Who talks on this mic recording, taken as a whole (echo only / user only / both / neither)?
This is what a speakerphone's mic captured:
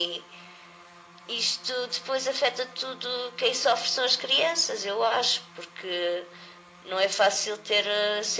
echo only